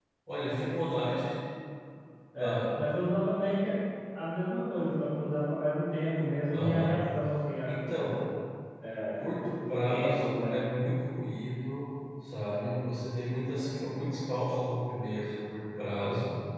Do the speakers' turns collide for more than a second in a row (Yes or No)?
Yes